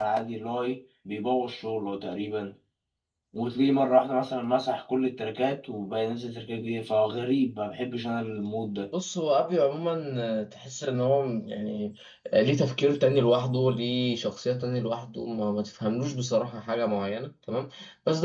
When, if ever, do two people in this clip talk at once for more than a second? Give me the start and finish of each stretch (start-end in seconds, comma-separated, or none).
none